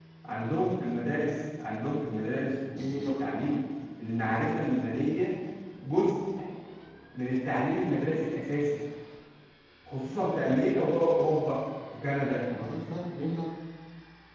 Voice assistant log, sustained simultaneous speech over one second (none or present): none